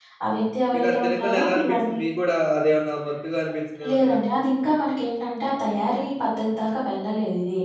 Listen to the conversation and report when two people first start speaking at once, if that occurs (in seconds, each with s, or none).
0.7 s